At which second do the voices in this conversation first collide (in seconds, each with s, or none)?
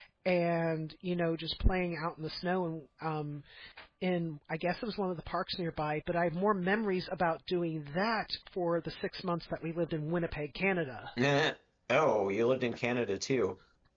none